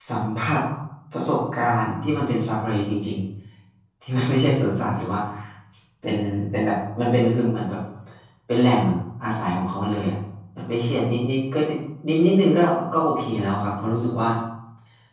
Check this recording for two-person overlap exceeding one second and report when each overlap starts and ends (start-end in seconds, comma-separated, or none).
none